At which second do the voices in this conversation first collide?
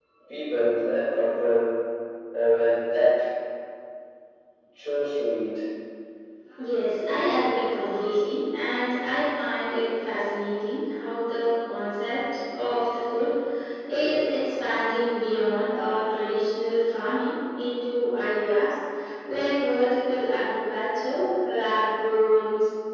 none

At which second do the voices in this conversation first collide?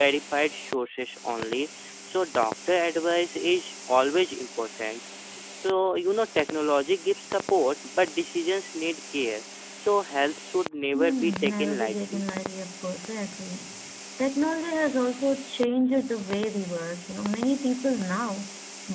10.9 s

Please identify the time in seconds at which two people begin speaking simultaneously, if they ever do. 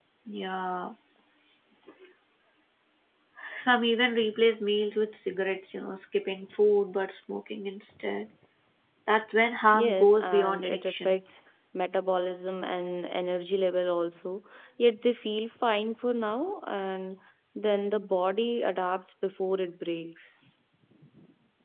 9.7 s

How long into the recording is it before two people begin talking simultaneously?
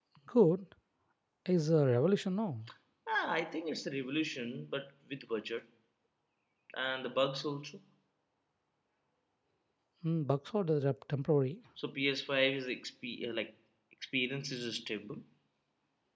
none

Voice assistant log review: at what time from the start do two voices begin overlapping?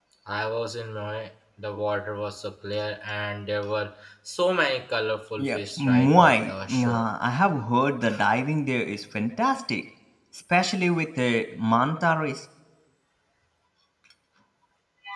5.4 s

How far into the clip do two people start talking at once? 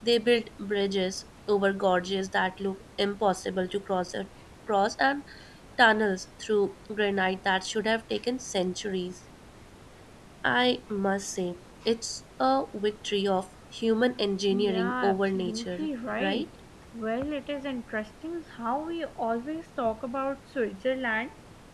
14.5 s

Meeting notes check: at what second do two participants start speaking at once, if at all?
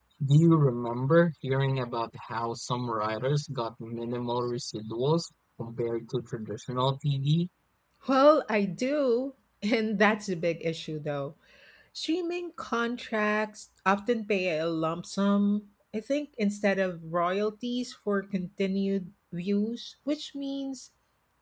none

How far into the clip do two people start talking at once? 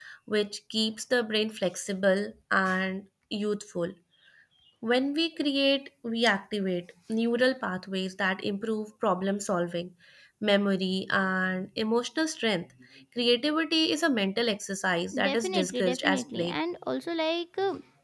15.1 s

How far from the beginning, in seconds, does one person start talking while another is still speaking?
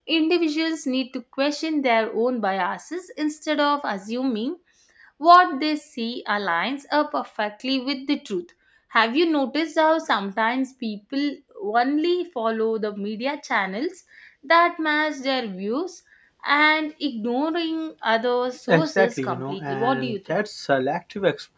18.7 s

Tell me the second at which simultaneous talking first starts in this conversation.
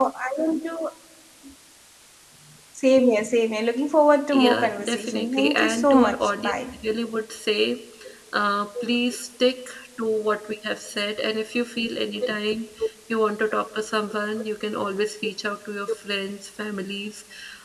4.3 s

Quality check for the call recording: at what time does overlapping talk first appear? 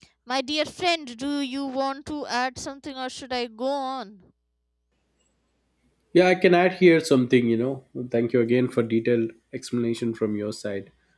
none

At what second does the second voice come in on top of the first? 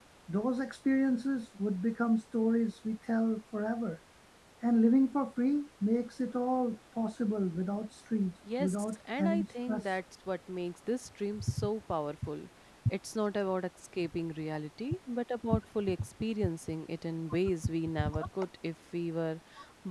8.6 s

